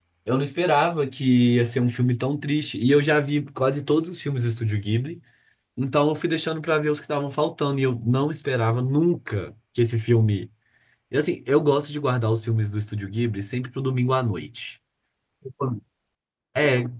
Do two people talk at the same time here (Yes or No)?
No